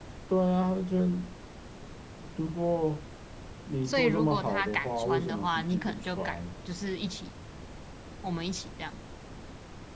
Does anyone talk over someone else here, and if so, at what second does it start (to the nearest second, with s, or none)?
4 s